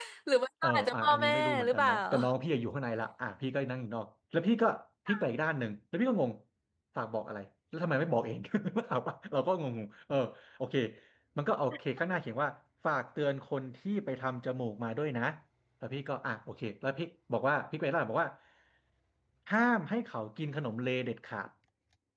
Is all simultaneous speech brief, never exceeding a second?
No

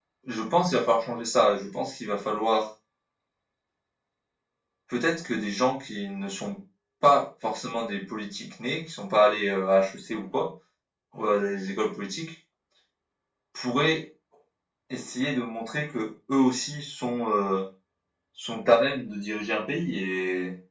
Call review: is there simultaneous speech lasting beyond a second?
No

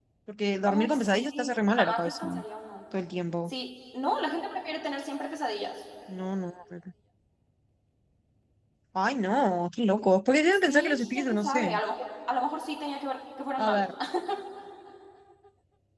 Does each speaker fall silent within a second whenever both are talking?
No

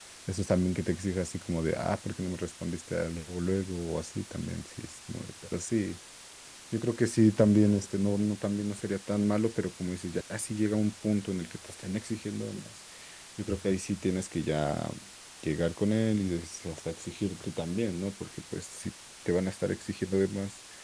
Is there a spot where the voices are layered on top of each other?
No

